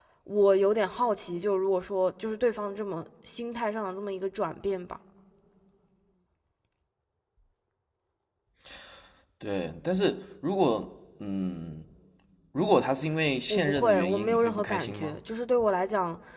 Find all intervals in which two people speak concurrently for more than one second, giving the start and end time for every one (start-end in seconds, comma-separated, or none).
13.5-15.2